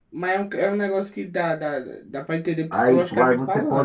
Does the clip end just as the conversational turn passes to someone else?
Yes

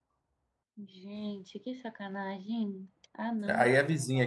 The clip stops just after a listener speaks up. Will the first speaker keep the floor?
No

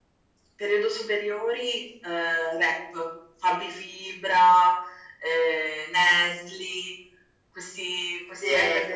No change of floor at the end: No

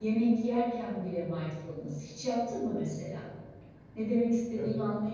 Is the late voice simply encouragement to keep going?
No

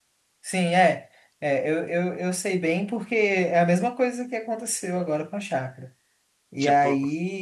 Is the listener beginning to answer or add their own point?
No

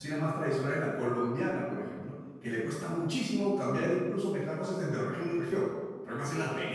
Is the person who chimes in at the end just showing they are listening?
No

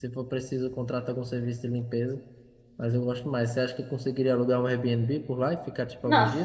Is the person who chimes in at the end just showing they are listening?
No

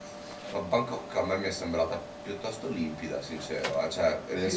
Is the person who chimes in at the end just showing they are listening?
No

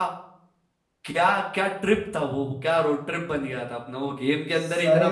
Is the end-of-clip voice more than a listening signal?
Yes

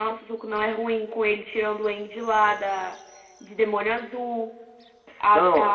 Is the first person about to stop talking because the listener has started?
No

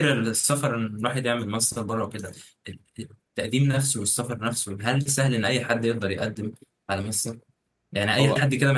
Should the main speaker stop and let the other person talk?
No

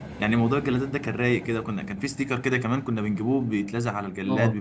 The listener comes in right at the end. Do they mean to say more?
No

